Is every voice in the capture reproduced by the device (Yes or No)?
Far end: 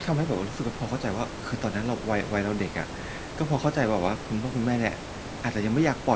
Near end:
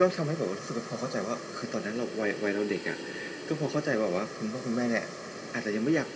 Yes